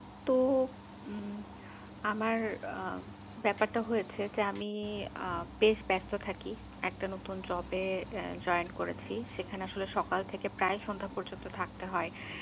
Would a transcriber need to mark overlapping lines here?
No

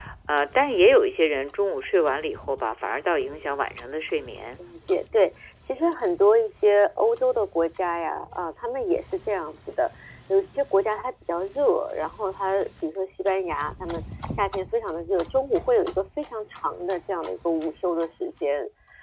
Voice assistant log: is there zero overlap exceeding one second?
Yes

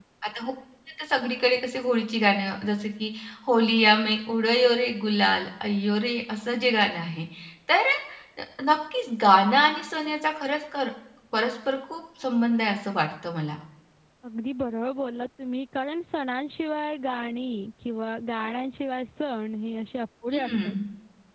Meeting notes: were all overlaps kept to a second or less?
Yes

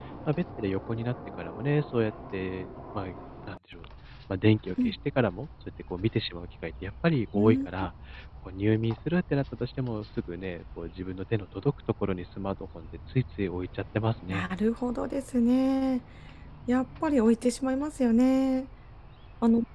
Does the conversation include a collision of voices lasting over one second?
No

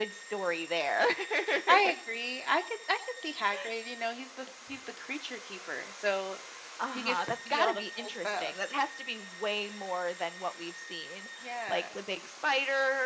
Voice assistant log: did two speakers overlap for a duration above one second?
Yes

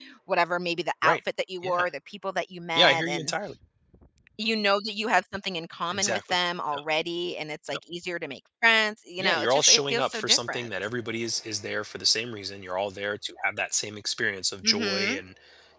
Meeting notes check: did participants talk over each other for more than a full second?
Yes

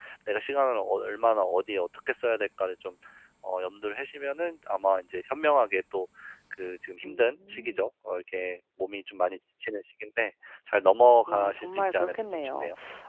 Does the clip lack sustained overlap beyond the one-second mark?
No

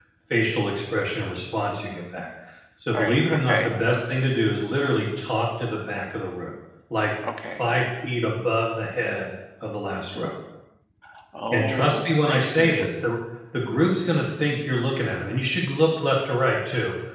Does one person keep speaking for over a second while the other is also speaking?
Yes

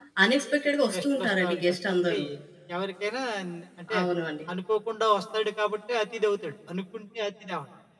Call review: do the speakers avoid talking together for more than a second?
No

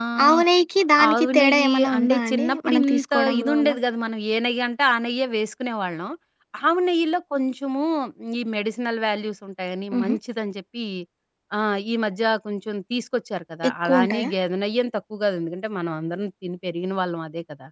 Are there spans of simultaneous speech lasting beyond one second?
Yes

